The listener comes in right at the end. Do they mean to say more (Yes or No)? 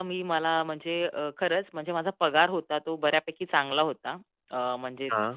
No